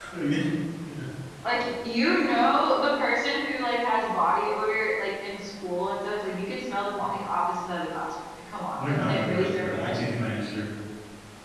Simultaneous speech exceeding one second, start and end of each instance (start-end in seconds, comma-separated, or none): 8.8-10.0